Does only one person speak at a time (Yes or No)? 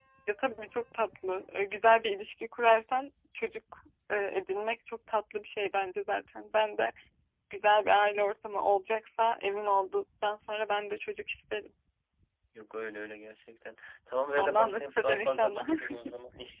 No